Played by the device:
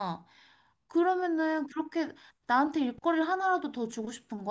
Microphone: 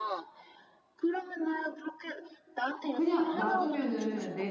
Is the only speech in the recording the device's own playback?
No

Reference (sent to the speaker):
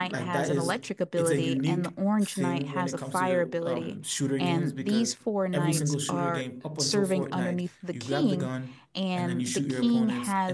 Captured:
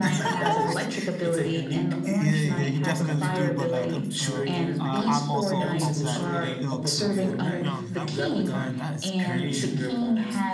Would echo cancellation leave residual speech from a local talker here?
Yes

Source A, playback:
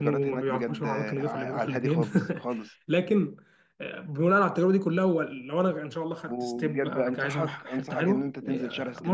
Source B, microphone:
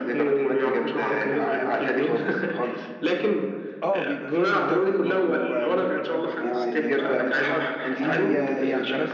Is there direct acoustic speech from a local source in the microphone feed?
Yes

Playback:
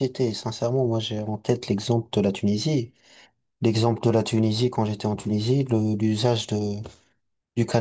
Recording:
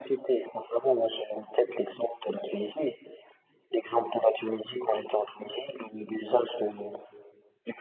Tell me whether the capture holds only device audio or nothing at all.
Yes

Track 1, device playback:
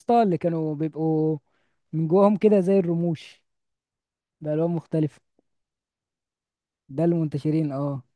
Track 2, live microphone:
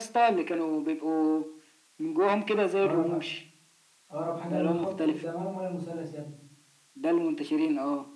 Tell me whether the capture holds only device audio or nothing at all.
No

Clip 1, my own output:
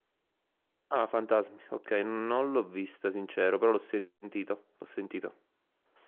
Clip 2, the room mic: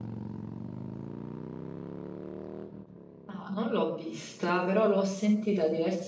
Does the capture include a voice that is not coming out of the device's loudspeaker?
Yes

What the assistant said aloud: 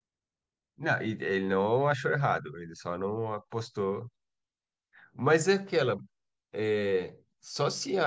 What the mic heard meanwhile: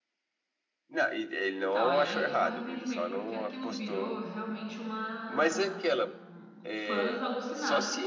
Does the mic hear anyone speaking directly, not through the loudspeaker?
Yes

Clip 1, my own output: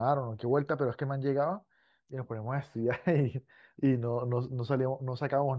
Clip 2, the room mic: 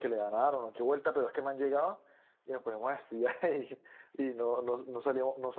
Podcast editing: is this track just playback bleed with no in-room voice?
Yes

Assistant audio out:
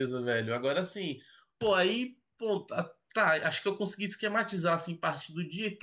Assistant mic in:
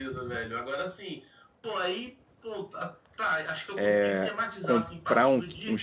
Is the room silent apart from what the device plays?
No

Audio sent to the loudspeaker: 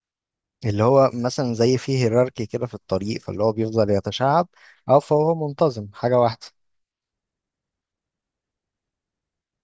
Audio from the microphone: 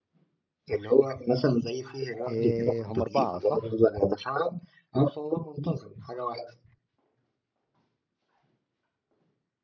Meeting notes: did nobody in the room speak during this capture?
No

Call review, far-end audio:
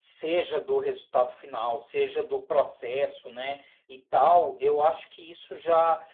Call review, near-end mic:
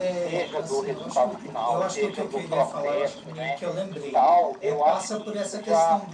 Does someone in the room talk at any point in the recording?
Yes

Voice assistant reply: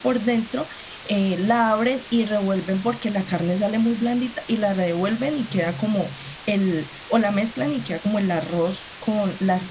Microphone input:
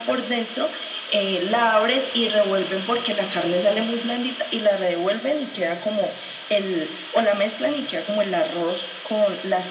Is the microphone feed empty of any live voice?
Yes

